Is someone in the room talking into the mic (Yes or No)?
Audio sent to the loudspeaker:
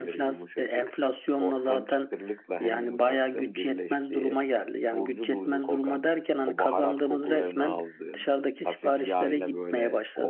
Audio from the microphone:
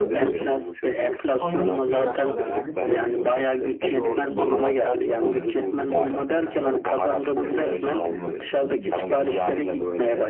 Yes